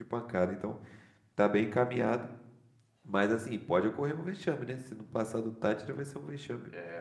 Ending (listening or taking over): taking over